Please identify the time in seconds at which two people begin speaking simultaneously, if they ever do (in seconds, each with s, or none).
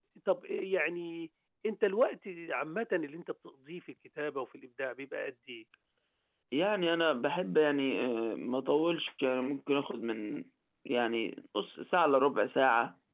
none